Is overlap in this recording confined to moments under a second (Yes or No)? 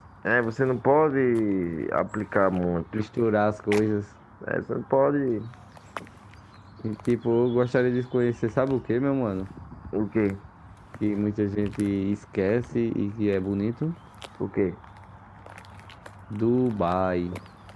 Yes